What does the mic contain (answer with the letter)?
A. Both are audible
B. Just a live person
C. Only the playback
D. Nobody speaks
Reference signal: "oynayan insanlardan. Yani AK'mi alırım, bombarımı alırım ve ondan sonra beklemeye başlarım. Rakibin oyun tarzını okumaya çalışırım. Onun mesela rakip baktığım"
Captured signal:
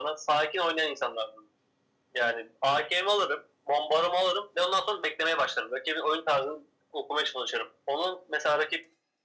C